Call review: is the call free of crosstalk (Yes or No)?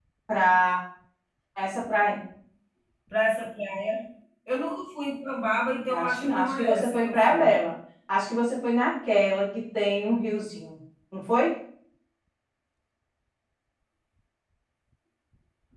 No